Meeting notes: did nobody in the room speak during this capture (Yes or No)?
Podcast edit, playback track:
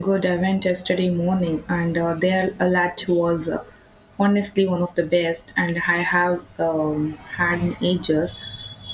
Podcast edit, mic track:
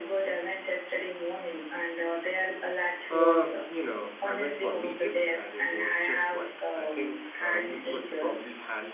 No